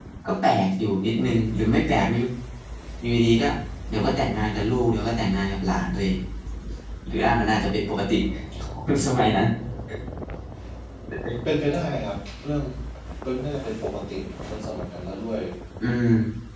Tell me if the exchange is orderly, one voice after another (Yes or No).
Yes